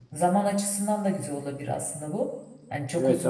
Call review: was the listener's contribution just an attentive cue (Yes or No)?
No